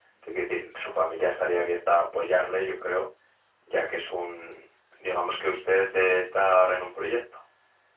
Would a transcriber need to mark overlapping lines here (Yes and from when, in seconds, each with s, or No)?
No